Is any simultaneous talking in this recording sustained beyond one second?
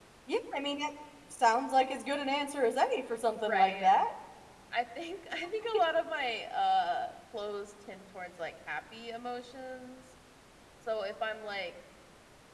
No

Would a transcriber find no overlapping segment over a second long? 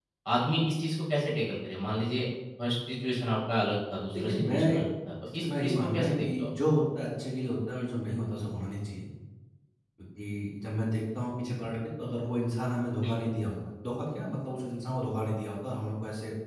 No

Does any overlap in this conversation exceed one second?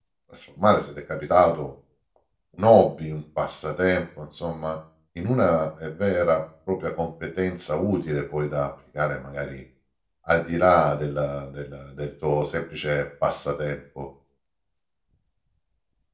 No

